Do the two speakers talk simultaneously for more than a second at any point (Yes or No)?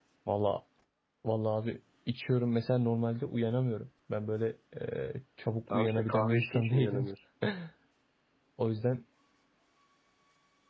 Yes